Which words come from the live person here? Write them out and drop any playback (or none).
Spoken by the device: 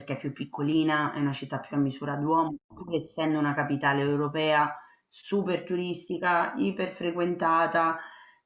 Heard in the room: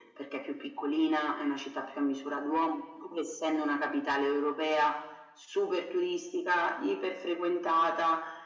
none